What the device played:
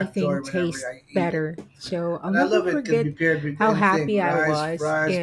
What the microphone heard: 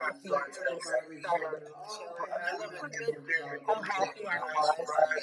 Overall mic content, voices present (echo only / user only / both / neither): both